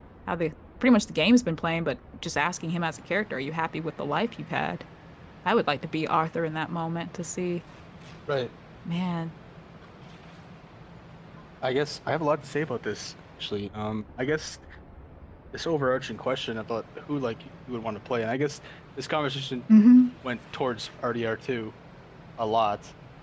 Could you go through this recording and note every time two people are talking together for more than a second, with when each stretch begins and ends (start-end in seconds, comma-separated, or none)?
none